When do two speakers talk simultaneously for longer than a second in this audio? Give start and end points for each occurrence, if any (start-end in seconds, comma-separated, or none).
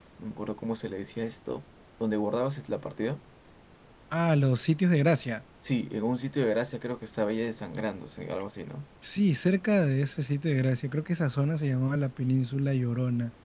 none